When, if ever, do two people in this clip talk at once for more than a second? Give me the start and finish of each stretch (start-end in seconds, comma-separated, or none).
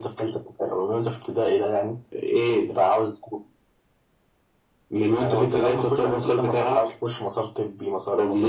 5.2-6.8